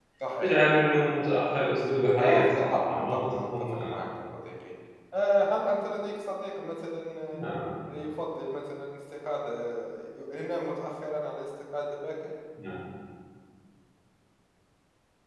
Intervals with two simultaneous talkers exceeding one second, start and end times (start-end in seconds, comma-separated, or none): 2.2-3.9